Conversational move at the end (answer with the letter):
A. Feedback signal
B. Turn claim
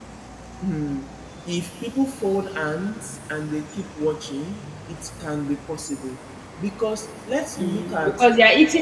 B